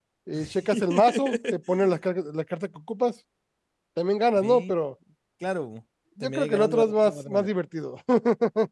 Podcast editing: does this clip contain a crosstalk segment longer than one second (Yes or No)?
Yes